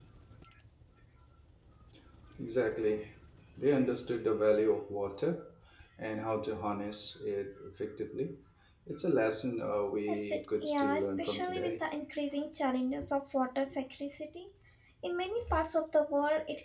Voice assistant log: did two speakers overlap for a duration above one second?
Yes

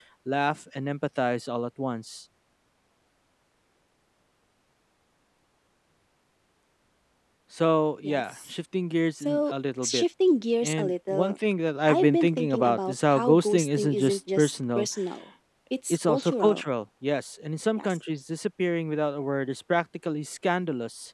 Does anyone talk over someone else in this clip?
Yes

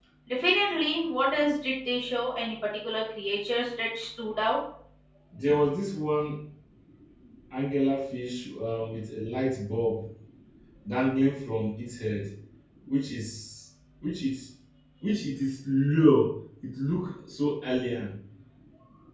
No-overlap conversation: Yes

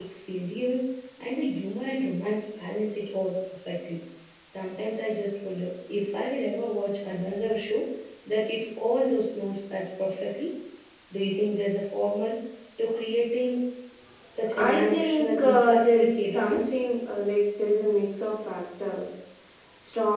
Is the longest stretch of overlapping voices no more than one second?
No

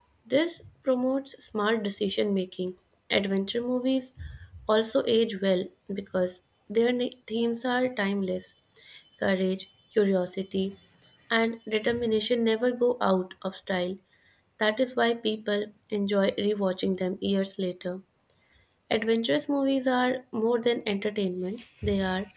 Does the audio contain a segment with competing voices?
No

